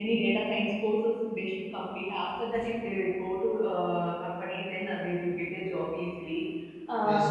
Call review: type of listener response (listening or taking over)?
taking over